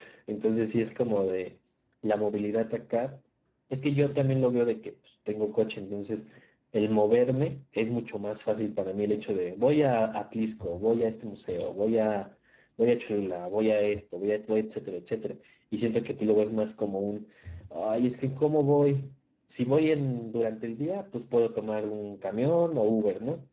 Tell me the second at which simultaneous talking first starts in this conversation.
none

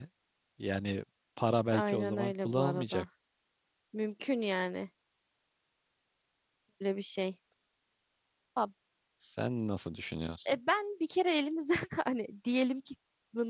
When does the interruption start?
1.7 s

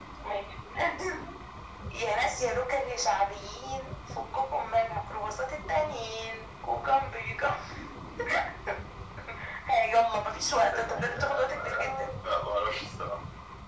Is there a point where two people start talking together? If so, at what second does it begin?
10.7 s

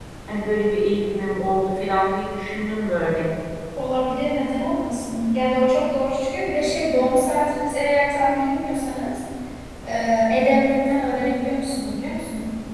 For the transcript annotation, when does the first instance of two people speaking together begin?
none

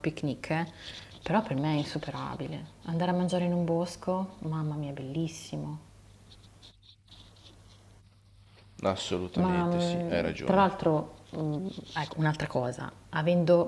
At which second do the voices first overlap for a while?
9.4 s

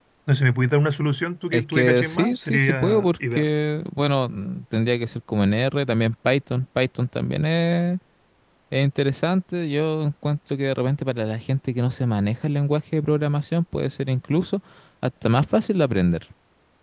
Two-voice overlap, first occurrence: 1.5 s

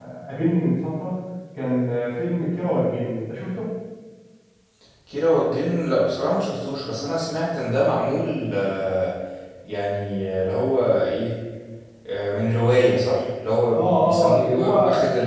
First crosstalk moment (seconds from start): 13.7 s

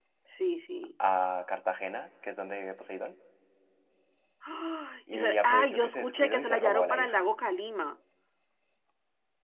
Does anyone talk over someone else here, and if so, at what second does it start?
5.1 s

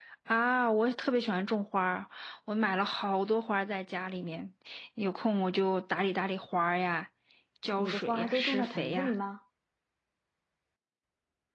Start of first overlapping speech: 7.8 s

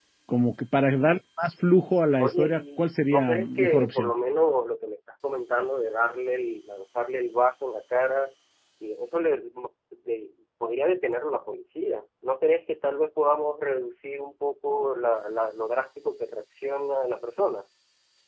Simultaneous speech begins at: 2.2 s

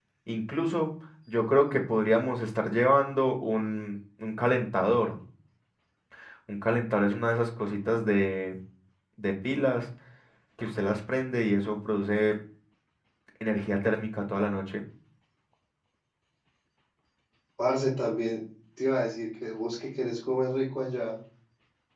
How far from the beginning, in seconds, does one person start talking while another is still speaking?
none

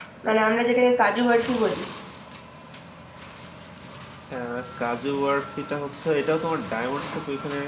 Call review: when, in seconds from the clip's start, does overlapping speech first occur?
none

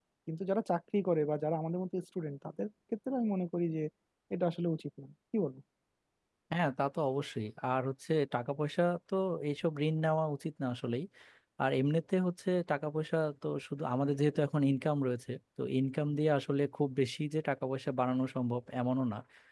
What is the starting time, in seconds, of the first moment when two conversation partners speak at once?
none

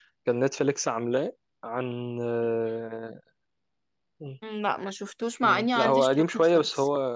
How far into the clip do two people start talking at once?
5.4 s

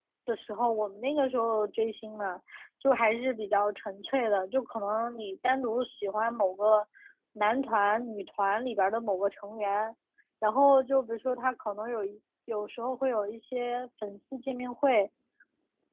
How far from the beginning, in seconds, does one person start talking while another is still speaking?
none

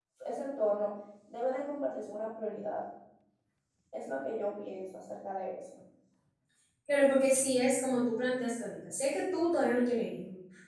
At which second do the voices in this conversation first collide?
none

